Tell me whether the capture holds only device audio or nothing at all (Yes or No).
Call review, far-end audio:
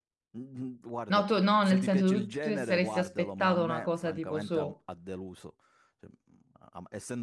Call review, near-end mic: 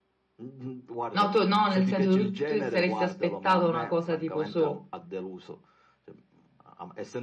Yes